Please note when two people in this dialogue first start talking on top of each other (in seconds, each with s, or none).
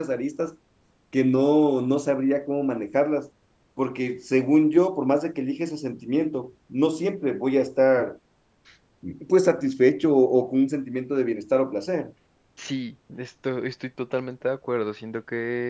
none